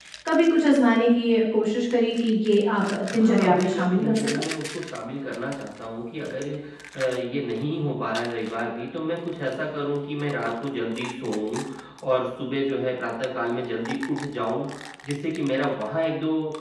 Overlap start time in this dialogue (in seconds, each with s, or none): 3.1 s